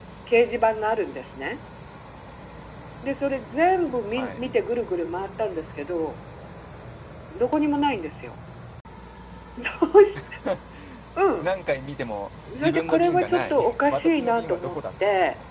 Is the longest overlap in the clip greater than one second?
Yes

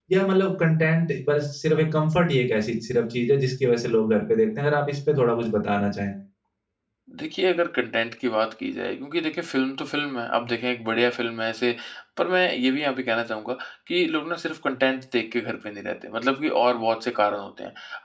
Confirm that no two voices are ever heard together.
Yes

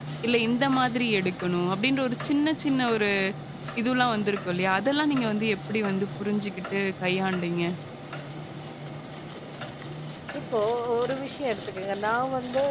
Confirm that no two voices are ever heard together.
Yes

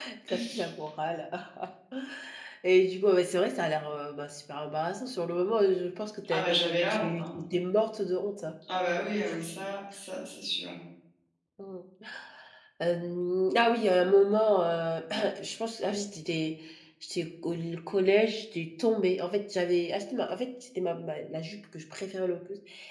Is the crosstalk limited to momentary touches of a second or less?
Yes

